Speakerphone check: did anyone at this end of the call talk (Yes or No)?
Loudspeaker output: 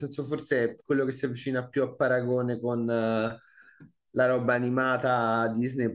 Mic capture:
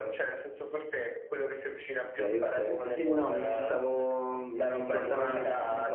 Yes